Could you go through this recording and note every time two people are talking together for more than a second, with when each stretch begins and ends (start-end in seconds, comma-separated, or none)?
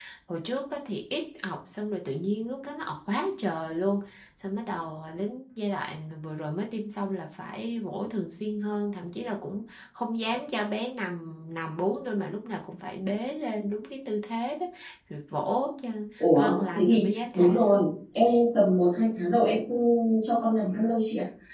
16.4-17.9